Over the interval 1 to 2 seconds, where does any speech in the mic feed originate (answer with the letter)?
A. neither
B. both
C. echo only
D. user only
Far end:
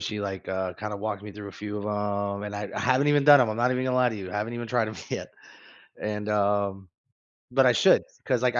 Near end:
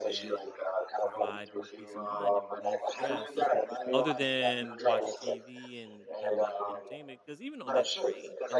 B